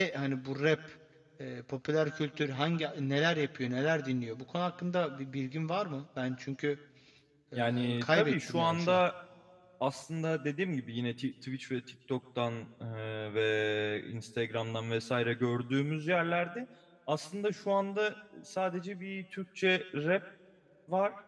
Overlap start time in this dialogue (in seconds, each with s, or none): 7.6 s